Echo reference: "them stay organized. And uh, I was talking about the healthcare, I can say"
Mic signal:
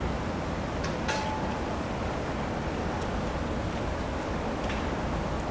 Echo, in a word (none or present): none